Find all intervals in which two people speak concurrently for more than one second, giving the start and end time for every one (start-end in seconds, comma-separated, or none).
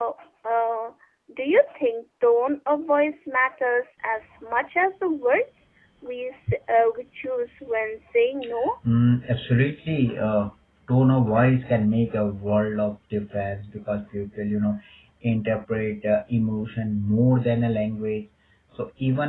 none